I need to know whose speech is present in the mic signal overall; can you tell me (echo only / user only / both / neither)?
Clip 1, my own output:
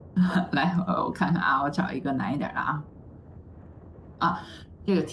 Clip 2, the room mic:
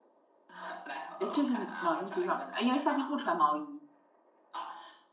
both